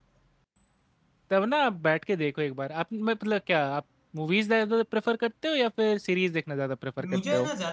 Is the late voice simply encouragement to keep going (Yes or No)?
No